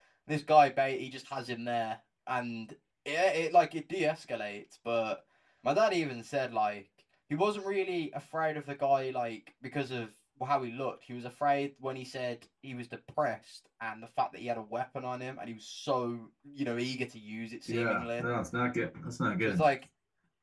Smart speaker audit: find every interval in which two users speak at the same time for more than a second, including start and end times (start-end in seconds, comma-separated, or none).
none